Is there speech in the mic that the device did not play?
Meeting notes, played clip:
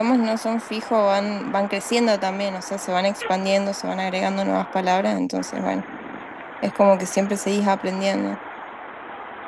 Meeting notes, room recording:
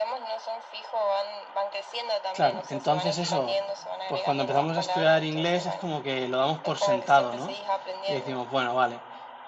Yes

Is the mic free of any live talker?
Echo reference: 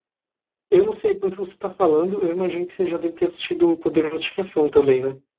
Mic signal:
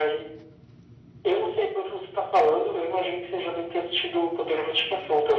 Yes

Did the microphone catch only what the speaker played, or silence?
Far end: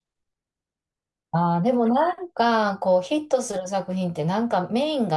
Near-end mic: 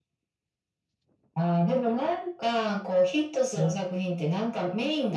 No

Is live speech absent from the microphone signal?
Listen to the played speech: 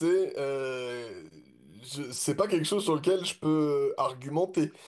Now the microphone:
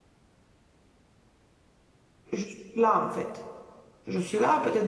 No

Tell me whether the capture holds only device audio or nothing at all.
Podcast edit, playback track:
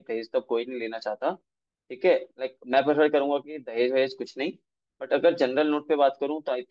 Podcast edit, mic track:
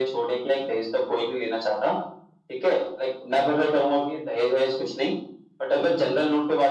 Yes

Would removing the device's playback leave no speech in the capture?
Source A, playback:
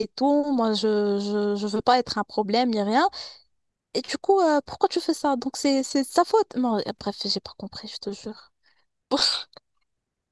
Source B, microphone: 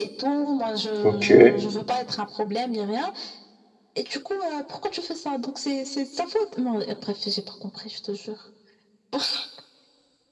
No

